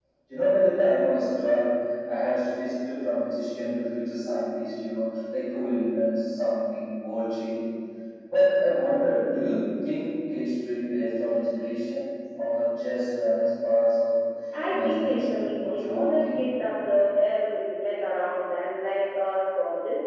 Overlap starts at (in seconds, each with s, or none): 14.7 s